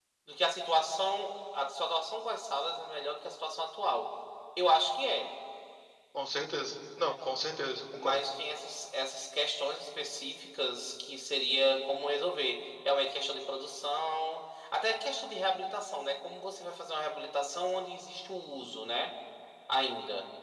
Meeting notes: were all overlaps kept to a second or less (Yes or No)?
Yes